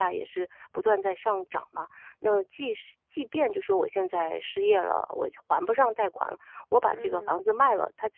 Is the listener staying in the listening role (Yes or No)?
Yes